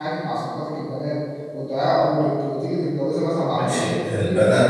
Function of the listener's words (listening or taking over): taking over